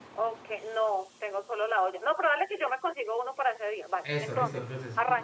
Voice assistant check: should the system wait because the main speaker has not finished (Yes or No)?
No